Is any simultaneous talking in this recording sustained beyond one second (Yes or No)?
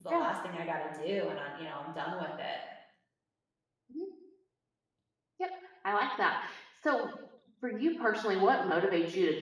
No